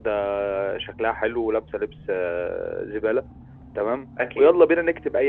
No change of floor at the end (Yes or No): Yes